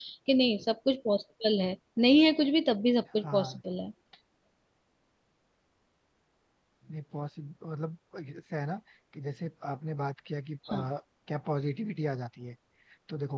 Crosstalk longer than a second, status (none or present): none